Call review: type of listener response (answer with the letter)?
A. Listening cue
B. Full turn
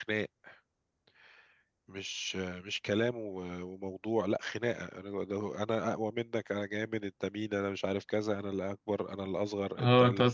B